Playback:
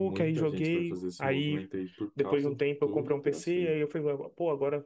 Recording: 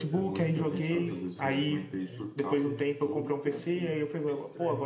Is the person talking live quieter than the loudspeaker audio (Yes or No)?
Yes